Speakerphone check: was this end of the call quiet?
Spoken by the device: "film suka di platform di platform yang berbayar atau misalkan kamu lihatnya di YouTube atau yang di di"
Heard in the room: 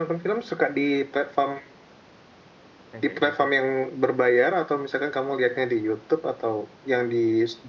No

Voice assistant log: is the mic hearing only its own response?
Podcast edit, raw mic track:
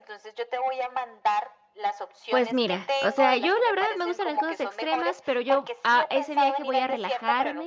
No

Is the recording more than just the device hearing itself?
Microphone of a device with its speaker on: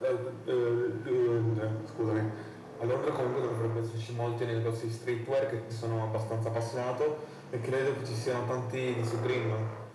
No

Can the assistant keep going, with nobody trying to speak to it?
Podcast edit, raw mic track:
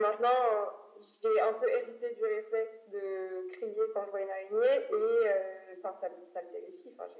Yes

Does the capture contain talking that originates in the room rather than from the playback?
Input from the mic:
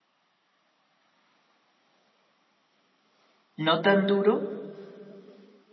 Yes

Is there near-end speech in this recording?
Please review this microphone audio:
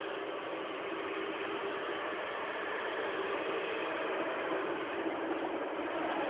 No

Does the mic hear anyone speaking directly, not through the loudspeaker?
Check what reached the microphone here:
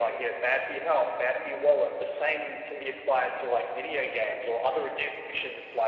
No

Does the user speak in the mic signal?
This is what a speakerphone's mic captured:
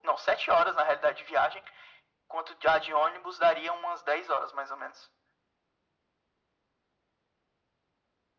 No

